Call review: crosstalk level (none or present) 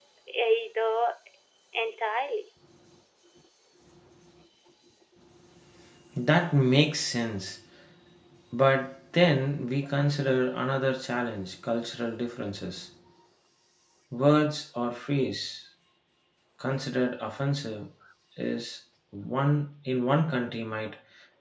none